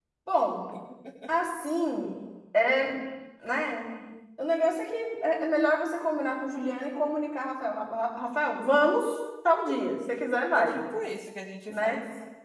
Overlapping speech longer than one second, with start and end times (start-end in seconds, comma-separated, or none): none